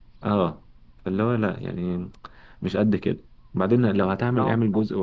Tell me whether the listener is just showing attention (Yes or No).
Yes